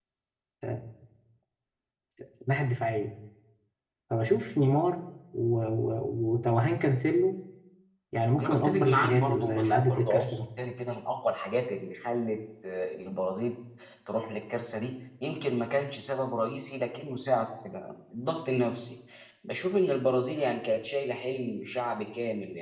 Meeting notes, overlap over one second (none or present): present